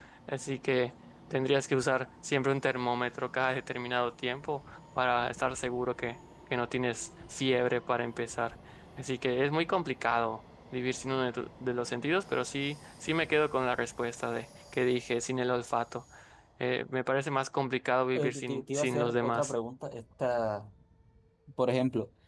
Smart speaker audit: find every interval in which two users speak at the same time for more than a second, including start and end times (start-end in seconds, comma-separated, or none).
18.1-19.5